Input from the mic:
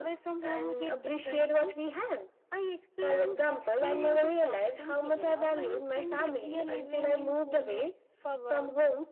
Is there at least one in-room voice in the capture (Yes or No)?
No